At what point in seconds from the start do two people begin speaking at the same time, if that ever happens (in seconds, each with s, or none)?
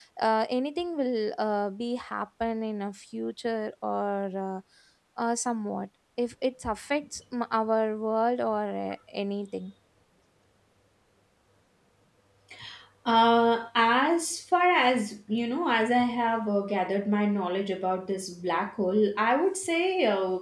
none